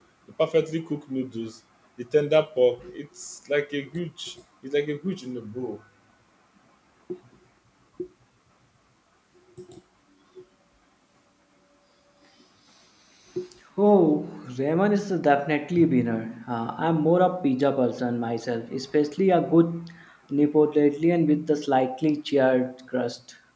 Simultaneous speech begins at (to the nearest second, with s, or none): none